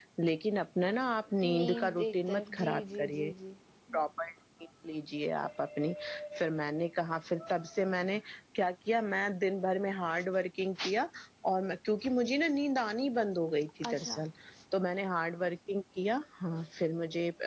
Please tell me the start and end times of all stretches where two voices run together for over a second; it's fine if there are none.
1.4-3.3

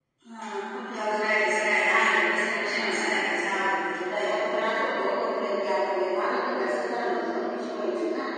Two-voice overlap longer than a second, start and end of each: none

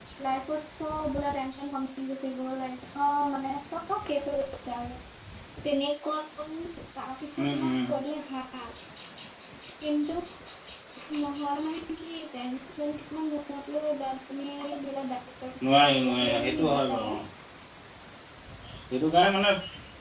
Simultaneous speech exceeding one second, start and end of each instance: 15.7-17.0

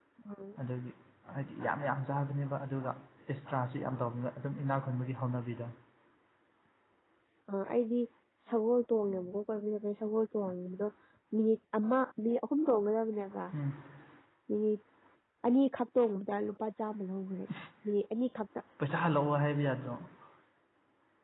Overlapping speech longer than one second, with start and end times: none

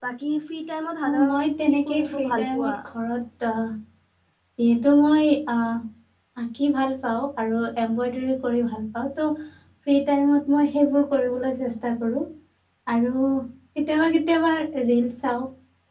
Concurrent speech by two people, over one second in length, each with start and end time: 1.1-2.7

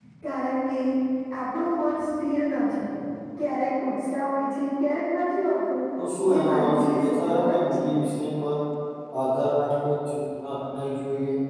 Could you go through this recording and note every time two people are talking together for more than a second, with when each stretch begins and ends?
6.3-7.9

